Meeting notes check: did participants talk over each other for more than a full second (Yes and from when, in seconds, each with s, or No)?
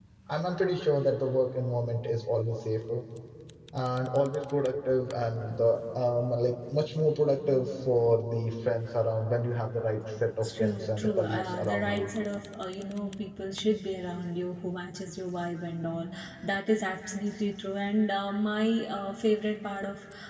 Yes, from 10.4 s